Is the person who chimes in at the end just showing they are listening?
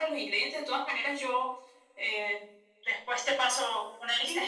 No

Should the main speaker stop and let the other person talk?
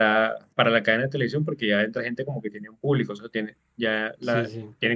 No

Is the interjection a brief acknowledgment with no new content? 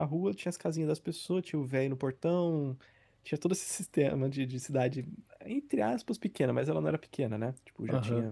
No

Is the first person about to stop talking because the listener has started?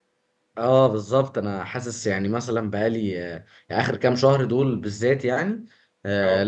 No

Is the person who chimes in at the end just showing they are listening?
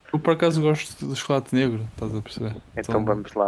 No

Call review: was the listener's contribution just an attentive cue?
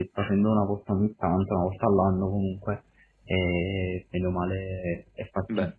No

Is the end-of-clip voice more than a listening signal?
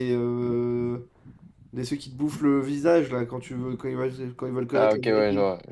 Yes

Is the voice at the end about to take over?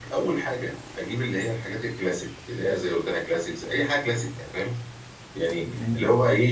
No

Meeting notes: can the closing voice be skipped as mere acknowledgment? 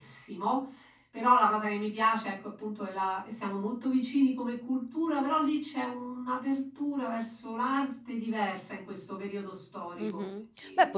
No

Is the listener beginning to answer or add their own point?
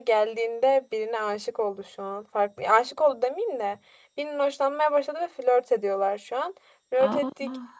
No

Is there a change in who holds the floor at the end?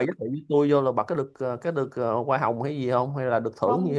Yes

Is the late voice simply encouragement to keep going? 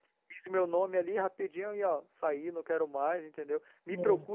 Yes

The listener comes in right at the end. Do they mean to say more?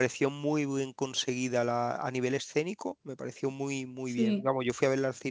No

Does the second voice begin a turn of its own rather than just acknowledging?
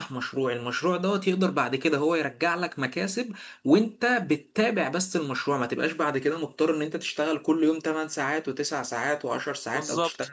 No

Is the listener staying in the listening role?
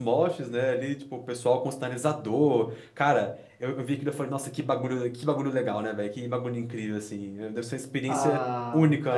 No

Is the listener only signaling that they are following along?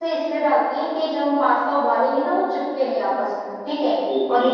No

